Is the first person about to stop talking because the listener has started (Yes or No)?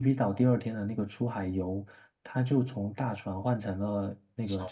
No